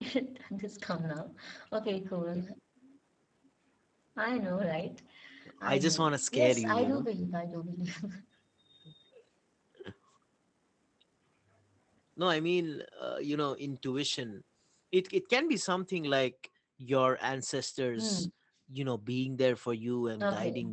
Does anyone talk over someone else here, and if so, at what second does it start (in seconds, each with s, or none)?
5.6 s